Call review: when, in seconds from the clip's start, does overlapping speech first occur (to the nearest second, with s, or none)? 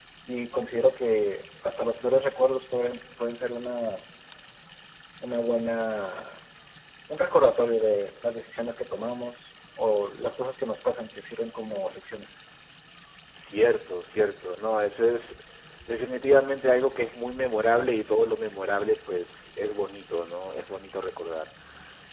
none